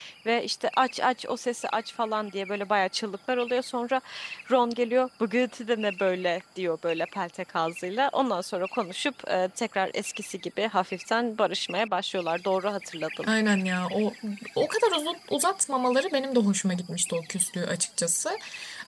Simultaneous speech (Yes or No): No